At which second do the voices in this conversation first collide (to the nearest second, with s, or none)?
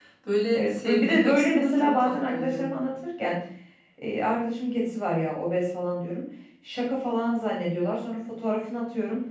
1 s